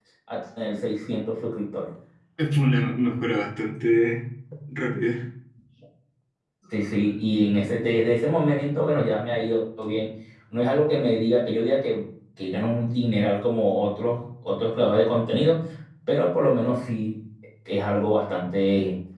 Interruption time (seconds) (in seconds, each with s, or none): none